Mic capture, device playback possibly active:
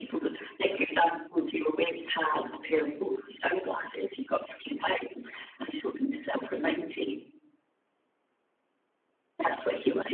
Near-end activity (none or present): none